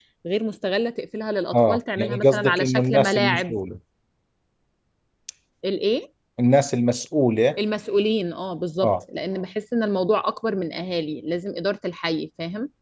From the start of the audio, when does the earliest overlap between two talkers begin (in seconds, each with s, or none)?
1.5 s